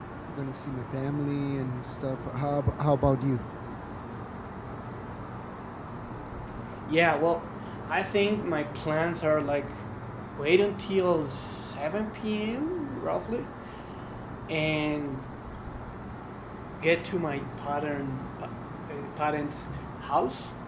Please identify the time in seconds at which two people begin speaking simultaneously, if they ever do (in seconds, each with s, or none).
none